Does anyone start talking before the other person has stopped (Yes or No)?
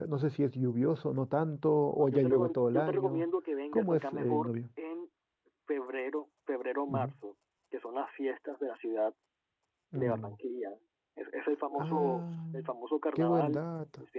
Yes